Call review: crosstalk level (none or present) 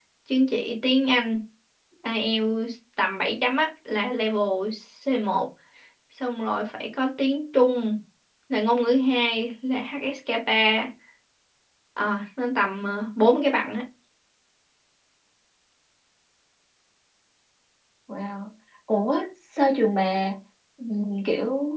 none